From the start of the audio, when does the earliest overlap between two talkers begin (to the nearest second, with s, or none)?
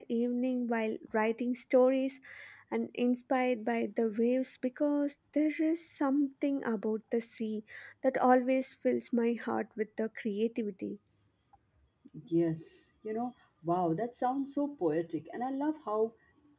none